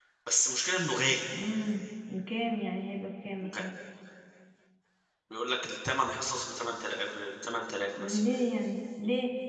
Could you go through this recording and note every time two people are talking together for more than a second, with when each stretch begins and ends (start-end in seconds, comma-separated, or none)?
none